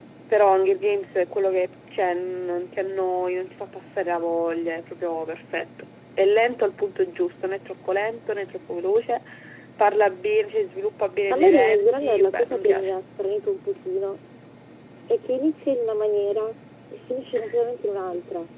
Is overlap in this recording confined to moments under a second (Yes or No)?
No